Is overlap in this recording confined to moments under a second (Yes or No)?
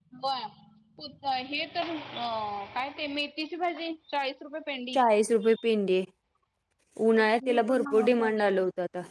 No